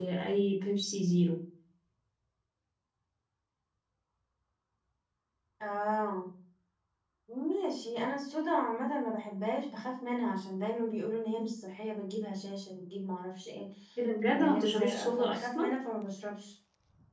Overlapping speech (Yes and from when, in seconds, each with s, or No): Yes, from 14.3 s